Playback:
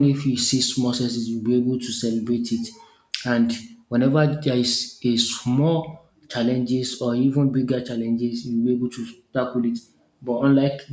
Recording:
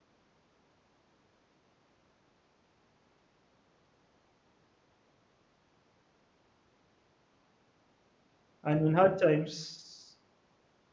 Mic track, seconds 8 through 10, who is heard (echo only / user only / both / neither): user only